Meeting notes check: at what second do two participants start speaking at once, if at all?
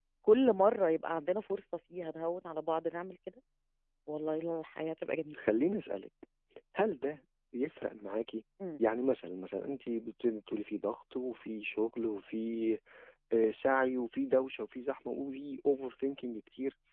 none

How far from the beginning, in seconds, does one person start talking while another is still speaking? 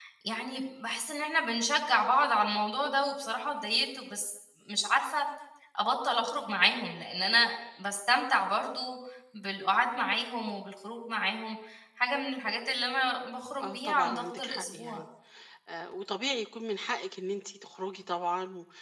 14 s

